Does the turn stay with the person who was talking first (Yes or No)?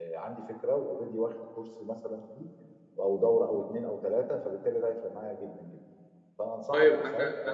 No